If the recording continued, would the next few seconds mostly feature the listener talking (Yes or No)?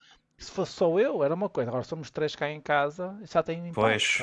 Yes